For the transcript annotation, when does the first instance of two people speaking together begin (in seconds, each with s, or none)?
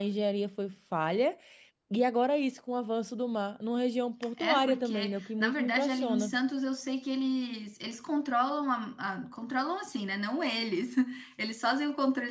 4.4 s